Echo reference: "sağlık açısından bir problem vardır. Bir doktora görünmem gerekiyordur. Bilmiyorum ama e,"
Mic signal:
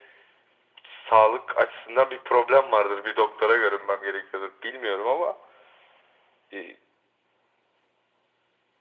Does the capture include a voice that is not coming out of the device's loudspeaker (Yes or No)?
No